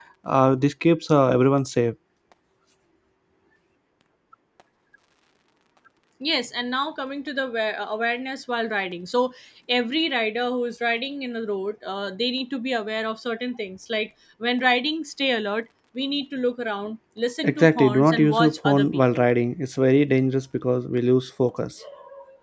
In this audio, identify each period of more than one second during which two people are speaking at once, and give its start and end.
17.4-19.3

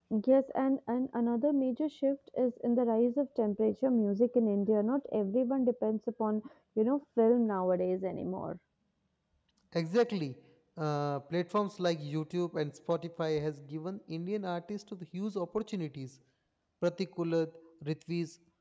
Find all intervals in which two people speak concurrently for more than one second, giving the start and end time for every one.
none

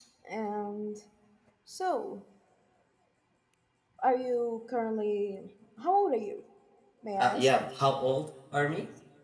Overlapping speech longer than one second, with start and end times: none

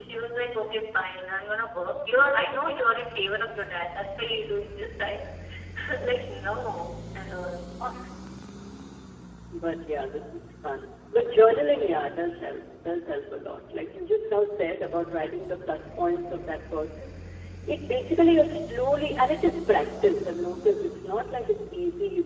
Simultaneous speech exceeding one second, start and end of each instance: none

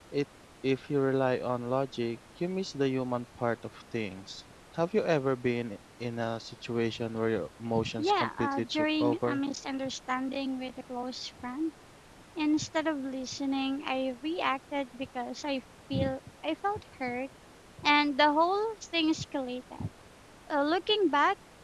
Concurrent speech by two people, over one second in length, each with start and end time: 8.0-9.4

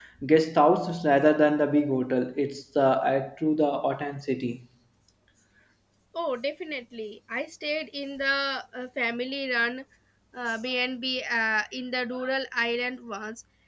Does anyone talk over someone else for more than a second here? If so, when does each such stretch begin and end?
none

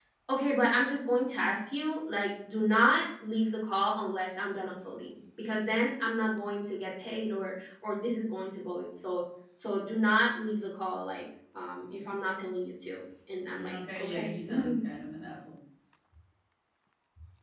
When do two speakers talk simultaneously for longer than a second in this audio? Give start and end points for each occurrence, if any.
13.5-14.8

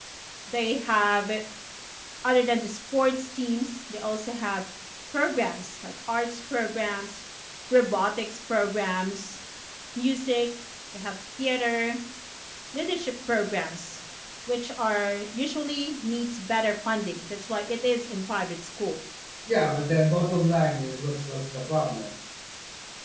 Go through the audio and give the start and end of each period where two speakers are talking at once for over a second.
none

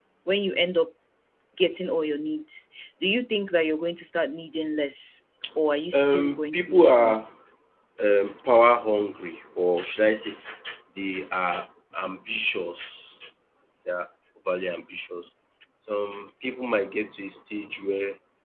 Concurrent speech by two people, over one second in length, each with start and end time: 5.9-7.2

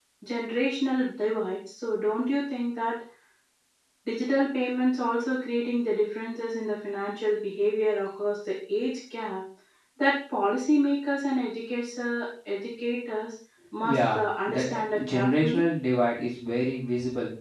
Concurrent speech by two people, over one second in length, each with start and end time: 13.8-15.7

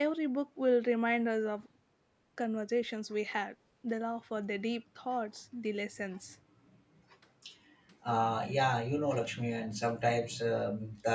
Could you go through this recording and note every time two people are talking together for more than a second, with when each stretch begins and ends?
none

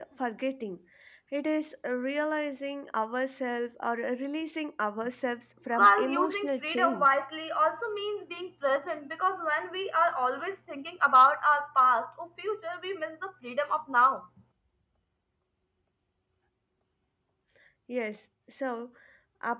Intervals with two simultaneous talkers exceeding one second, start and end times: 5.7-7.1

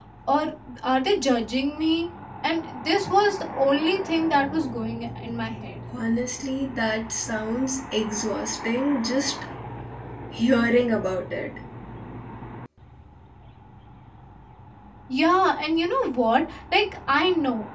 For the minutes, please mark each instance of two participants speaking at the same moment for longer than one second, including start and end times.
none

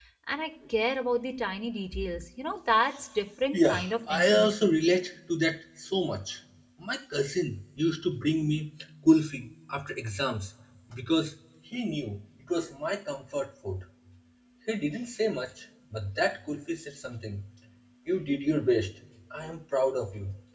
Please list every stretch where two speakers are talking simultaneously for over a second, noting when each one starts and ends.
3.5-4.8

